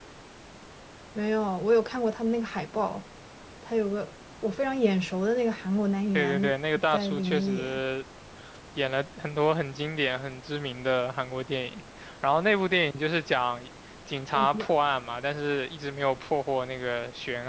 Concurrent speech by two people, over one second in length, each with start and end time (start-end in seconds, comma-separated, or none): 6.1-7.8